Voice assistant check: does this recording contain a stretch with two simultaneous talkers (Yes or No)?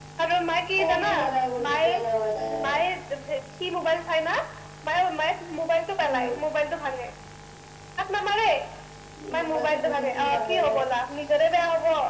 Yes